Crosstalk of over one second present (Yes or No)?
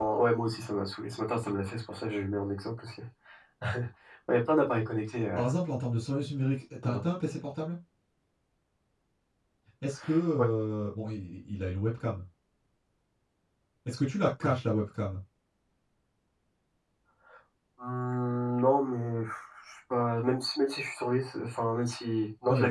No